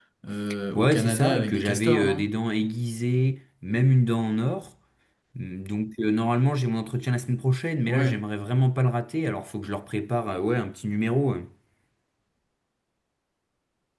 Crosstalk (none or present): present